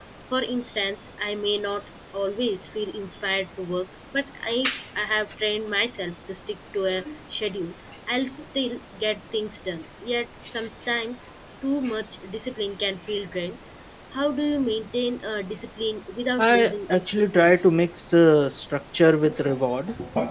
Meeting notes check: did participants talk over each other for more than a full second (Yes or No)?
Yes